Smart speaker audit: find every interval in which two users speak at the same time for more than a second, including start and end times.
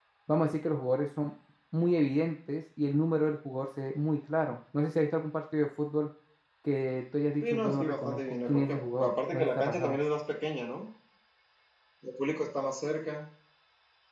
7.4-10.0

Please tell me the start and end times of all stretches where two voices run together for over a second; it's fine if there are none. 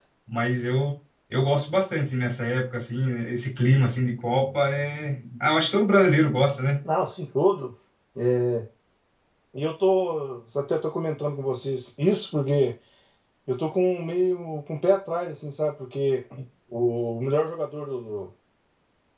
none

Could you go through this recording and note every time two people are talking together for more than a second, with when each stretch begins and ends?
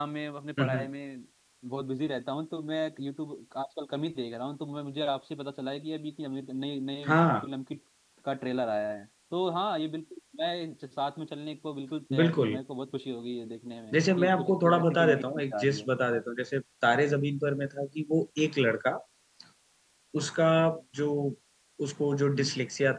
13.9-15.9

